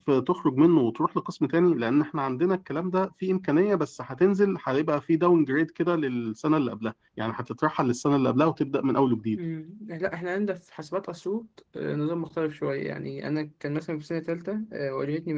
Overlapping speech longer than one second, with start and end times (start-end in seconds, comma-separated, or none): none